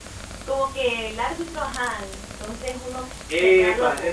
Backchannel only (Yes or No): No